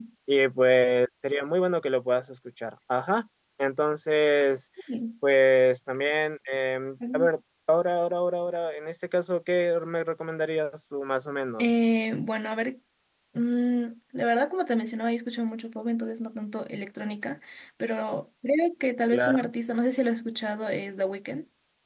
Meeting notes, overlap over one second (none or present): none